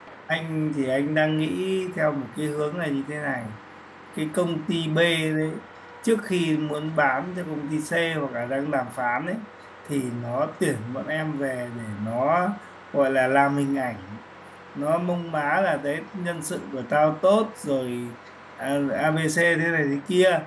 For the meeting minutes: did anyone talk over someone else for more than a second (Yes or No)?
No